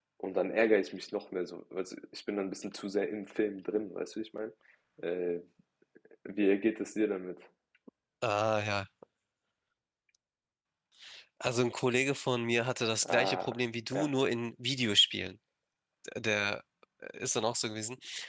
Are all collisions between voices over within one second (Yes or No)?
Yes